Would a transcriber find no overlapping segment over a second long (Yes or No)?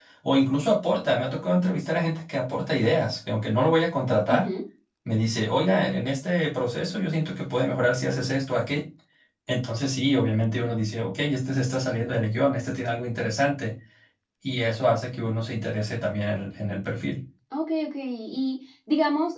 Yes